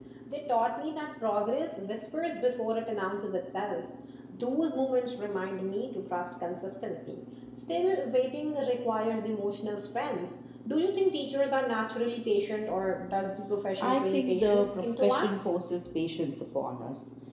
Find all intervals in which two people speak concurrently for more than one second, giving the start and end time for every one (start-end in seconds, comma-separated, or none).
13.8-15.4